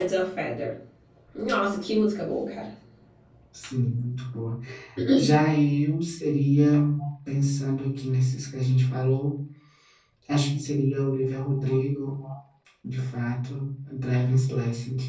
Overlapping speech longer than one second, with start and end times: none

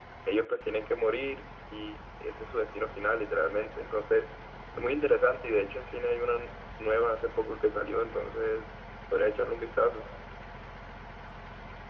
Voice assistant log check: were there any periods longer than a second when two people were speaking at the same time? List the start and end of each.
none

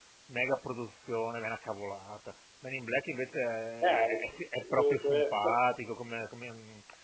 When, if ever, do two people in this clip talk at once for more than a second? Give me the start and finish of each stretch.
3.8-5.6

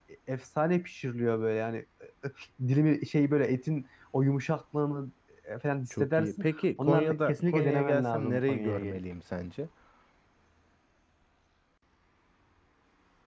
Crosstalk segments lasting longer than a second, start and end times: 5.9-9.0

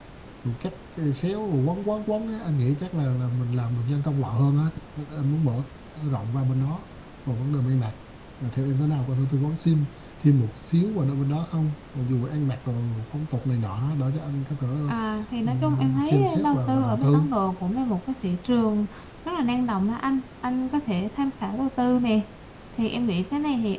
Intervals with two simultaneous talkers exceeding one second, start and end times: 15.4-17.3

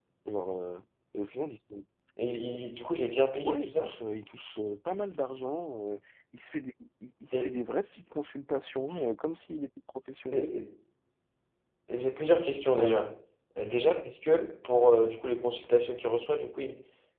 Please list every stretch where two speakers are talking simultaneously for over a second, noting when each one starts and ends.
none

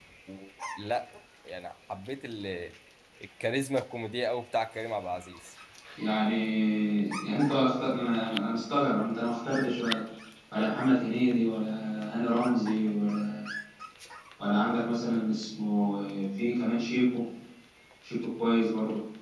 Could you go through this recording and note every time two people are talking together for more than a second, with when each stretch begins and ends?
none

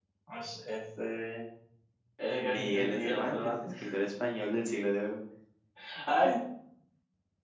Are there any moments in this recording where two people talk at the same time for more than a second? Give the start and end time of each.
2.4-3.8

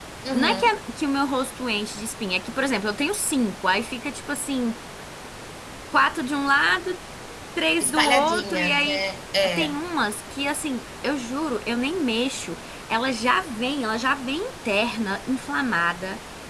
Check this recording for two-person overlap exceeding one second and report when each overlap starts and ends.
7.8-9.0

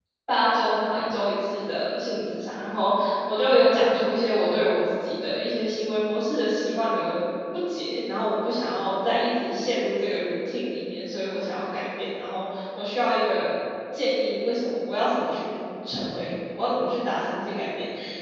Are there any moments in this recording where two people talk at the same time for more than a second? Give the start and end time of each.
none

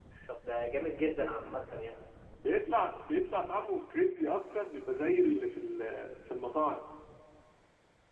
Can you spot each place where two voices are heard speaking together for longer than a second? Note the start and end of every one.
none

